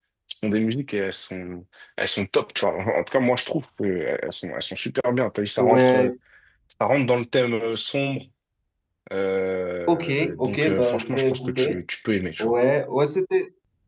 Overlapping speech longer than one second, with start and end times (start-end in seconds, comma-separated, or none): 9.9-11.8